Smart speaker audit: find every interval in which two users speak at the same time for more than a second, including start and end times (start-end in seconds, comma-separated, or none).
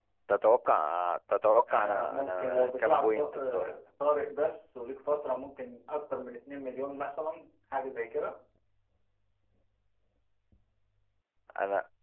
1.7-3.7